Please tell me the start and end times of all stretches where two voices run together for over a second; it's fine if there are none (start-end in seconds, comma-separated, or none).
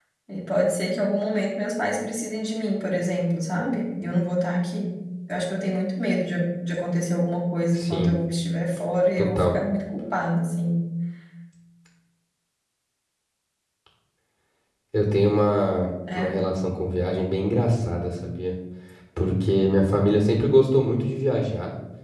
none